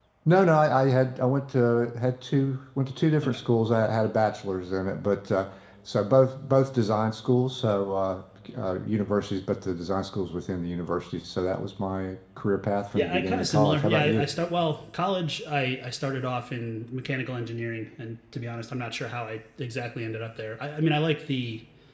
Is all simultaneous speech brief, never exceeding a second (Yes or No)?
No